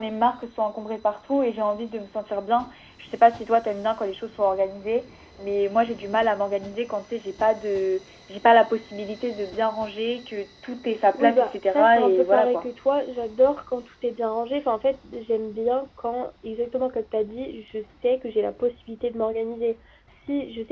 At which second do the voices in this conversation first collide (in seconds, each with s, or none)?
11.1 s